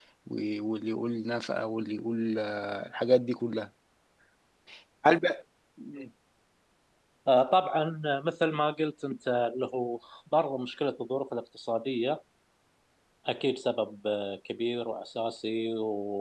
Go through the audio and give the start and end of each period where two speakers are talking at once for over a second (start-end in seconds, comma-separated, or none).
none